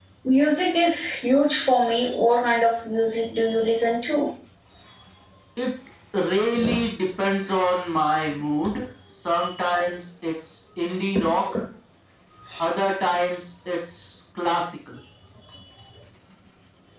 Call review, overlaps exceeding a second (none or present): none